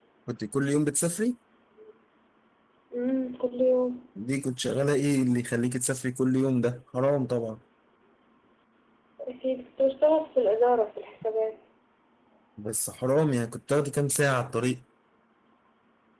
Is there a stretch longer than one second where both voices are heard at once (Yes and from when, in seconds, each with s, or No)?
No